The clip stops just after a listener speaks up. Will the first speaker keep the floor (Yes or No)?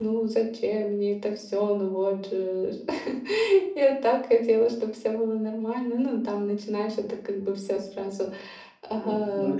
No